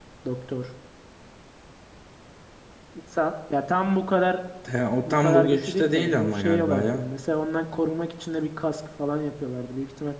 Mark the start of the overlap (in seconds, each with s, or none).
5.0 s